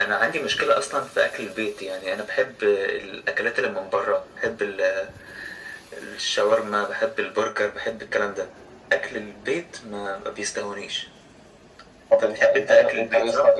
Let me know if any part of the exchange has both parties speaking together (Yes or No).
Yes